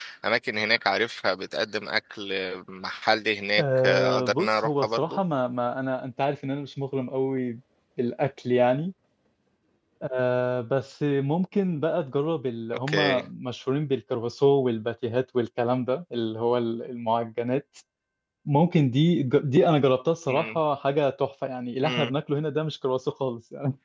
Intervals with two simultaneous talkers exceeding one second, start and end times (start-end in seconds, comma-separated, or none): 3.6-5.2